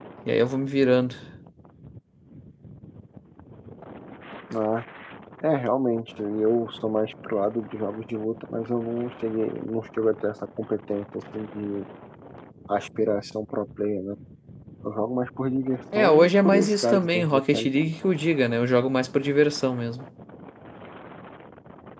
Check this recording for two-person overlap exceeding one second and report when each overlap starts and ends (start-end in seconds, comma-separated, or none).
15.9-17.7